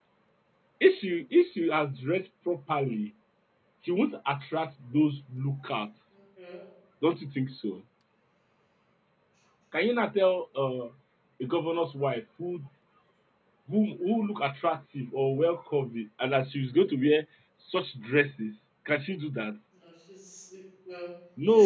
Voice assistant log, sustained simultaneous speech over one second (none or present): none